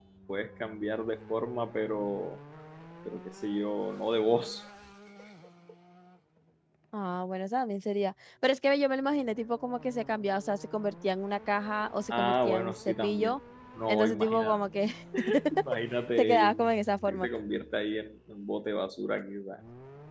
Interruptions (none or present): present